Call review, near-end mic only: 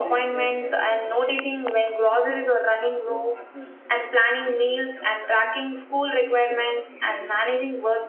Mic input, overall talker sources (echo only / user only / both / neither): both